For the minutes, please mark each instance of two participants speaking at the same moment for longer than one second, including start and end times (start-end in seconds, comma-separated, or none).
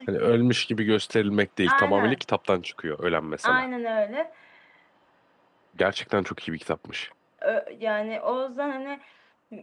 none